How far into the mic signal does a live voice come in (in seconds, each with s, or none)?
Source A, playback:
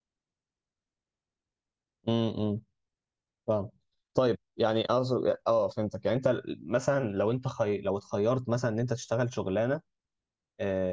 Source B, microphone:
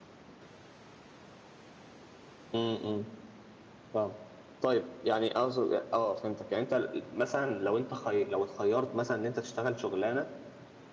none